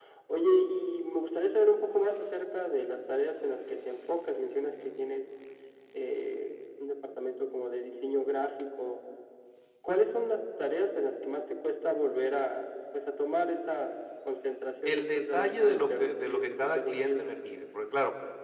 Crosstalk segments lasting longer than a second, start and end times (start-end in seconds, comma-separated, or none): 14.8-17.2